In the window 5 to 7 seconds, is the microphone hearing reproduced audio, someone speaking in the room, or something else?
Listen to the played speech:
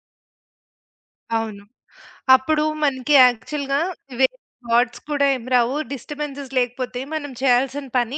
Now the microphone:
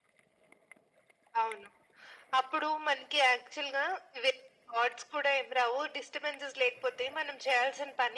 echo only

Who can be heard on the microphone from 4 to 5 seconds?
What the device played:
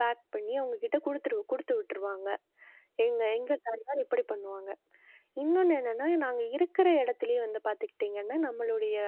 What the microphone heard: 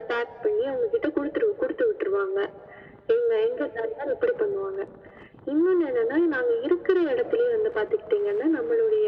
echo only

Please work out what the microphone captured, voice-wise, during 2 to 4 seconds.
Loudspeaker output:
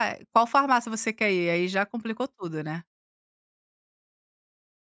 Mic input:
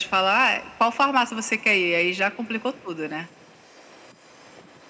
echo only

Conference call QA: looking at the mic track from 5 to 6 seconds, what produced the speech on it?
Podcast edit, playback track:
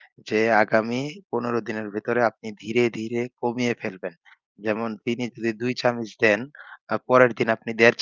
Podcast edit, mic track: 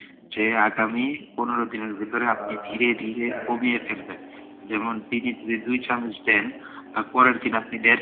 echo only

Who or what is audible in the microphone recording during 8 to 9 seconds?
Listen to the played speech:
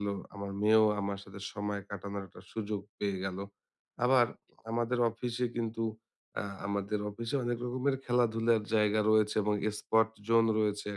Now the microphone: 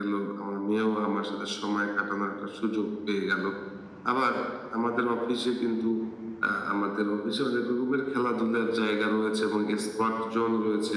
echo only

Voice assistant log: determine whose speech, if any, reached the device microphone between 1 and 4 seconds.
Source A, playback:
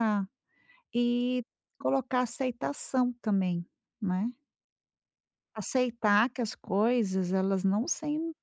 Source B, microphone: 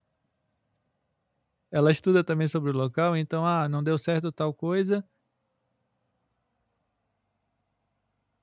user only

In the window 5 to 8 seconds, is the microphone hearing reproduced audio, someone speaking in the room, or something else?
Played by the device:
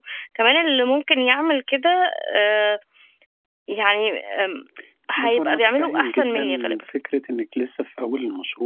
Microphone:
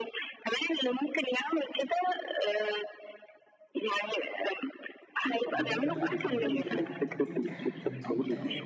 both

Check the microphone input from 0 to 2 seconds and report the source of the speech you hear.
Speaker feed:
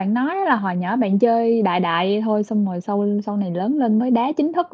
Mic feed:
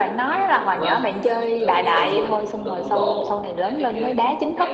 both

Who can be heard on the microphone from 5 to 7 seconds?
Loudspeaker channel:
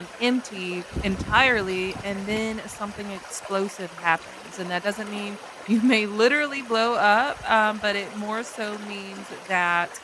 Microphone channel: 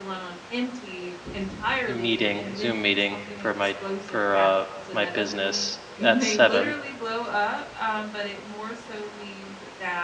both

